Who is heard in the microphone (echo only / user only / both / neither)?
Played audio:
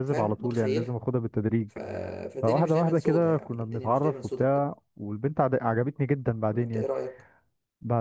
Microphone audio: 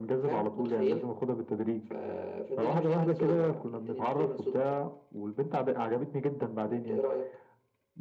echo only